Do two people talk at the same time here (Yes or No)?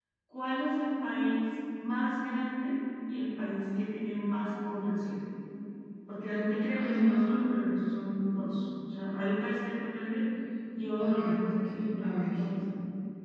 Yes